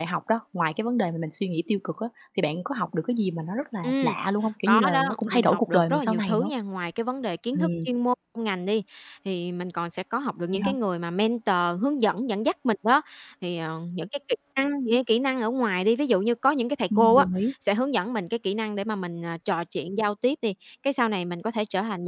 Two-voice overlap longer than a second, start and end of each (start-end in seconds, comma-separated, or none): 4.7-6.5